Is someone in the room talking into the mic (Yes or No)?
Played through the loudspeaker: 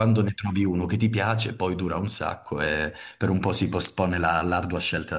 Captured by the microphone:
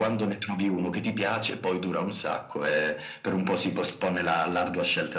No